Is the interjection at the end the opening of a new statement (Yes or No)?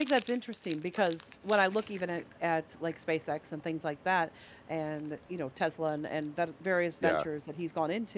No